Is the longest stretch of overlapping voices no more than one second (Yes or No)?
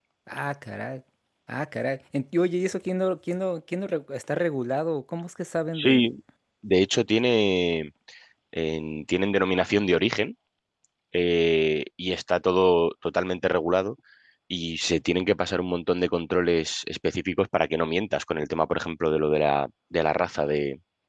Yes